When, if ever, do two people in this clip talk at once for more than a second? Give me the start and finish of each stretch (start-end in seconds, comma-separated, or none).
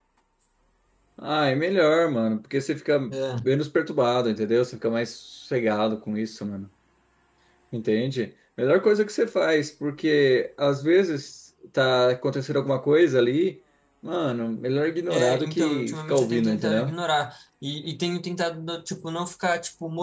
15.1-16.9